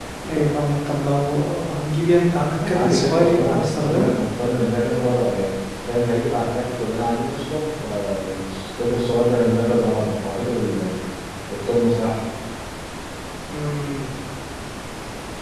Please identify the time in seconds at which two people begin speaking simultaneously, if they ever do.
2 s

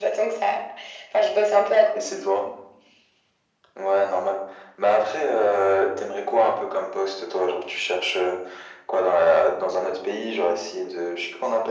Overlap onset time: none

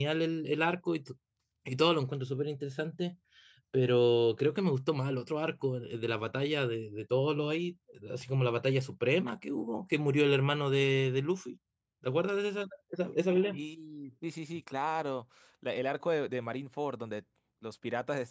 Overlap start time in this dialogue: none

